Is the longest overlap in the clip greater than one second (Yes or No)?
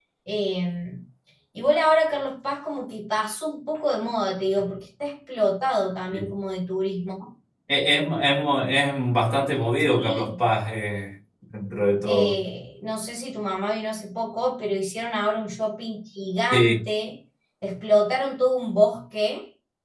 No